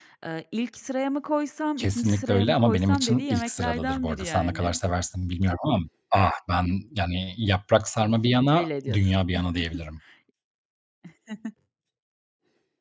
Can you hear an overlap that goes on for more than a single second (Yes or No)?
Yes